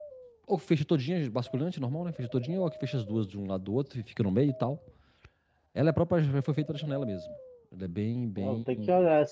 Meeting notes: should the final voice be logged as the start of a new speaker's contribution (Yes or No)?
Yes